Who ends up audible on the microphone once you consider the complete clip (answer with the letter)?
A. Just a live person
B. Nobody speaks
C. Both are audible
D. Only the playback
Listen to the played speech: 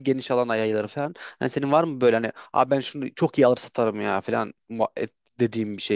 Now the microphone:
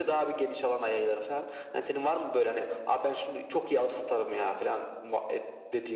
D